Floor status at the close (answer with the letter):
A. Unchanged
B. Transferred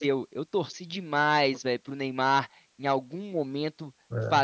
A